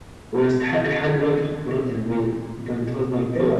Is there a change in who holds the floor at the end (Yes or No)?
No